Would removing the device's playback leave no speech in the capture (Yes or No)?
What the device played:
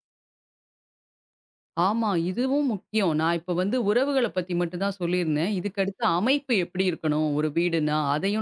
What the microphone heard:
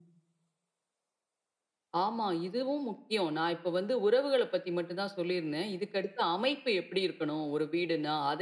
Yes